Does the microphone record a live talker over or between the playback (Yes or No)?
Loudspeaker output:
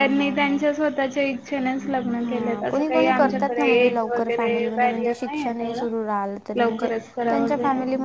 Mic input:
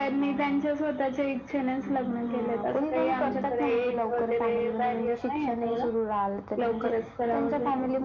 No